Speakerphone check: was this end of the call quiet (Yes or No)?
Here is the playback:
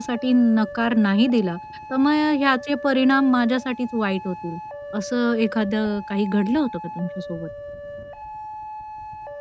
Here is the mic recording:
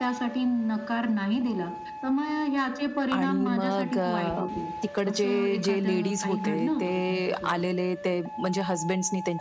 No